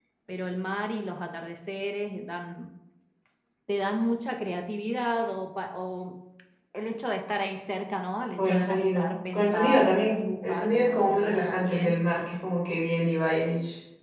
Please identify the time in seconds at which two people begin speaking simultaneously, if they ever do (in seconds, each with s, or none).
8.4 s